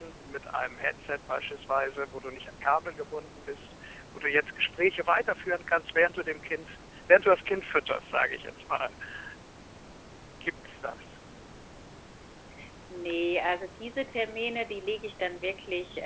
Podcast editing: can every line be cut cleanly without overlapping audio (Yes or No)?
Yes